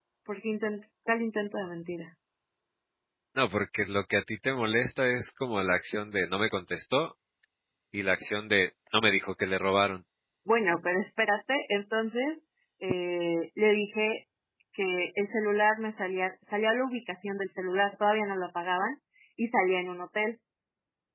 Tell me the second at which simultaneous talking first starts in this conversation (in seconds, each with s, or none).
none